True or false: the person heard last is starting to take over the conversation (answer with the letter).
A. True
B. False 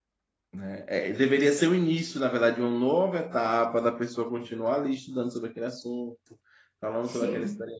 B